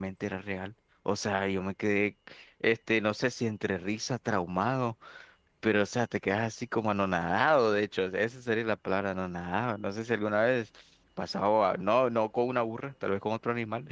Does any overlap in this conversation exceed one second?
No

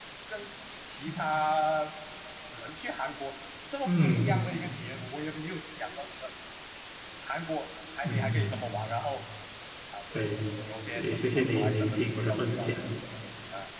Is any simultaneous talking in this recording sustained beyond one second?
Yes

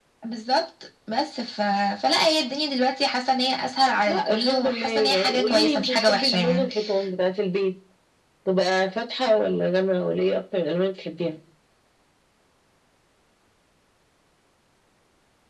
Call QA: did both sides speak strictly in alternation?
No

